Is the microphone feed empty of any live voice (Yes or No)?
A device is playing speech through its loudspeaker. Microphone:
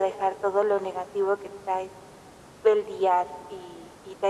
Yes